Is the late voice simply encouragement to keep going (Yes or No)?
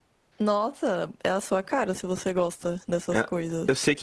No